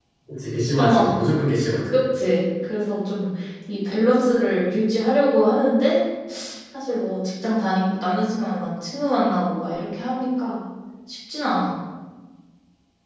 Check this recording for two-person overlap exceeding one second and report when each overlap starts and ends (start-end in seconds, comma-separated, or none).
none